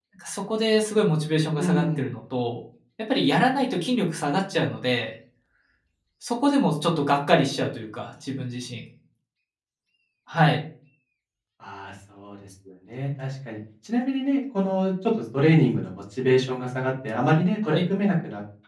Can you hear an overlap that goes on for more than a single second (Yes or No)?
No